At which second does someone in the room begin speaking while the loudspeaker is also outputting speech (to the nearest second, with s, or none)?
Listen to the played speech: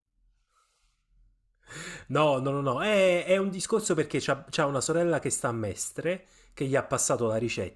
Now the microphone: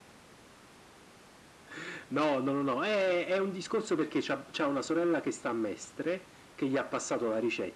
none